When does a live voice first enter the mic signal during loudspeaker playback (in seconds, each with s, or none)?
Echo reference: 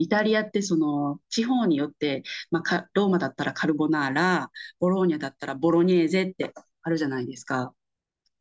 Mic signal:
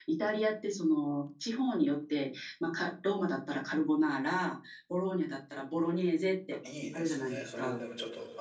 6.6 s